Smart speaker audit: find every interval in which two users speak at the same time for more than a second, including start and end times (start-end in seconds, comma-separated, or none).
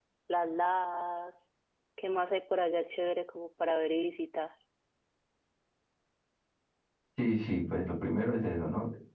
none